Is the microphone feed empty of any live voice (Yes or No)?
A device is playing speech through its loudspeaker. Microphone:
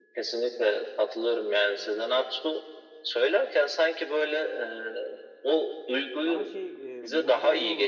No